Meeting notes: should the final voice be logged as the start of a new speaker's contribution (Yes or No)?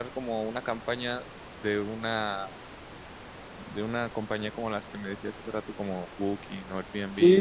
Yes